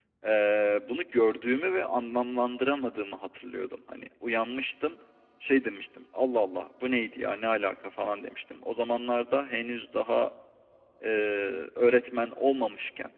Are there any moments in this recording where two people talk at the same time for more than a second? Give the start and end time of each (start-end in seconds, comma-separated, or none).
none